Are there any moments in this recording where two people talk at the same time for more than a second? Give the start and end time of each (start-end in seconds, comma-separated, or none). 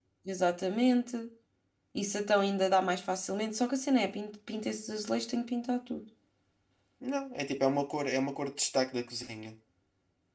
none